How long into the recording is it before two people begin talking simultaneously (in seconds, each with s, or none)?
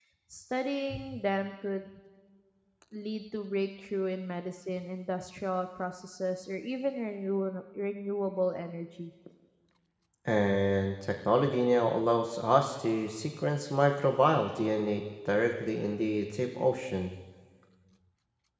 none